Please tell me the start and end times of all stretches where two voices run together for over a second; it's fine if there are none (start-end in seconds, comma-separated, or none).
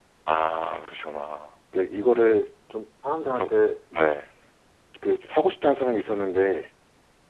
none